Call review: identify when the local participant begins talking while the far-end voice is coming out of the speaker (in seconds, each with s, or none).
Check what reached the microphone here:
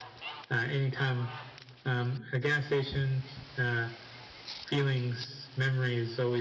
none